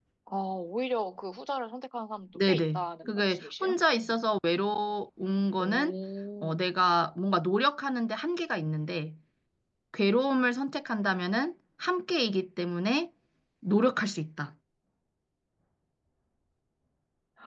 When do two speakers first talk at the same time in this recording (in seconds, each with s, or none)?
2.4 s